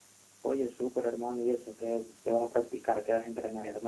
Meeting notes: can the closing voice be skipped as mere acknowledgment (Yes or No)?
No